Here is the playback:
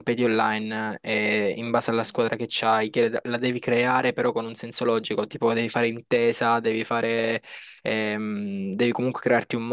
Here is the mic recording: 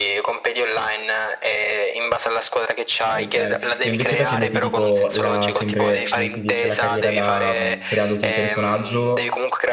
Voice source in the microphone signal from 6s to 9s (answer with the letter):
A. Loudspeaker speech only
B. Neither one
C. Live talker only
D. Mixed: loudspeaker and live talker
D